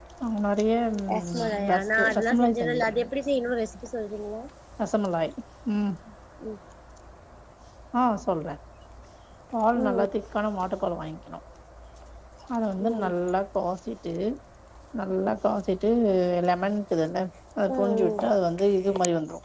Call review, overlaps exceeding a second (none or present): present